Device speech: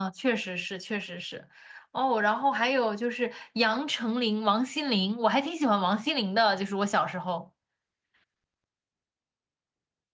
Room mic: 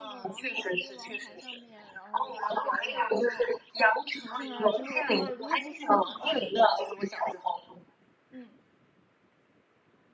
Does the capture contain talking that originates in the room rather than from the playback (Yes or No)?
Yes